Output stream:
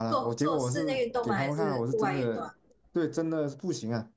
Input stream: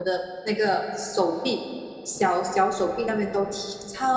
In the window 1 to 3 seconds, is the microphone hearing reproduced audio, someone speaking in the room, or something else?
user only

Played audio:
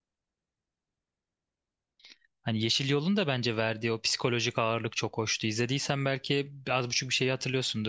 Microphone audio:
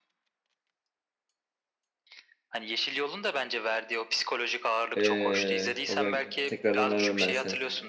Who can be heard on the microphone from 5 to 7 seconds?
both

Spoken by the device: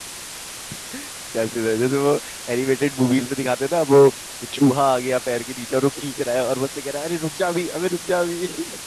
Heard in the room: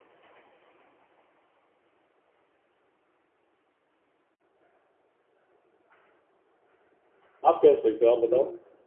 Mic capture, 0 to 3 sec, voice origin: neither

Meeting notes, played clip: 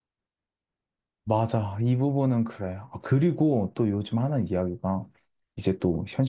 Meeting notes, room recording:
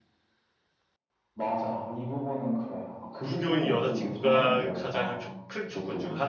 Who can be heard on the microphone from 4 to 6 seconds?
both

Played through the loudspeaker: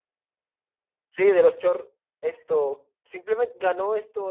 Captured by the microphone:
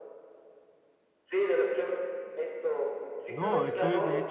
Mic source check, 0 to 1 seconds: neither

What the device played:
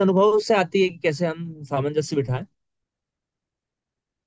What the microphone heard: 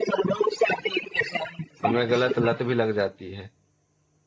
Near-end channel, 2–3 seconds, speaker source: both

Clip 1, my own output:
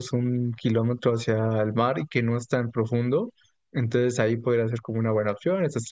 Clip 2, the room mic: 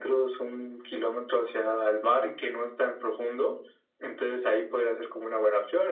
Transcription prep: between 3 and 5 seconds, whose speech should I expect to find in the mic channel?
echo only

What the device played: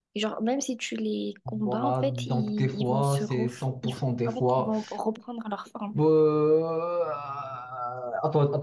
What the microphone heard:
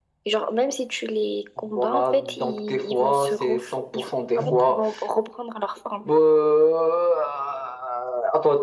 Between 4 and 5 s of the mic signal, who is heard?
both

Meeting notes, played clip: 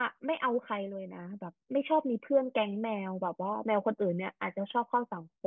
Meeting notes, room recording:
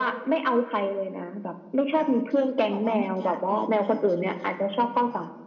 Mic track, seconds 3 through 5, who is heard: both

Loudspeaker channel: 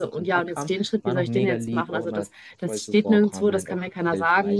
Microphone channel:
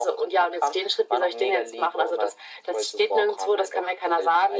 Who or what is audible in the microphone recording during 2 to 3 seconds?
echo only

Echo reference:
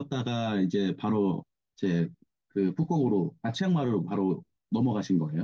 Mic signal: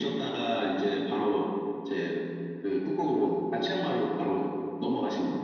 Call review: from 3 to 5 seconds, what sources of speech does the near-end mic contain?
echo only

